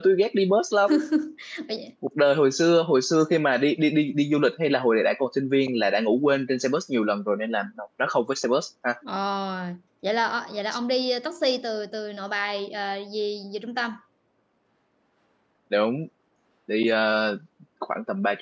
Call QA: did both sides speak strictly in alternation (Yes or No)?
Yes